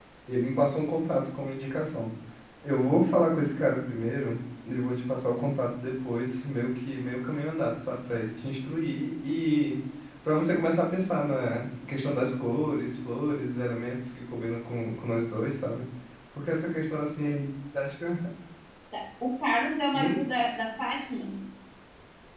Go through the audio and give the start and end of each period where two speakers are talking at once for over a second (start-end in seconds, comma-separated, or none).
none